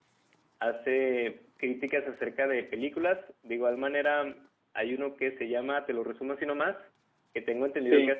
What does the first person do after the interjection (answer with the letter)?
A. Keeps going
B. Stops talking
A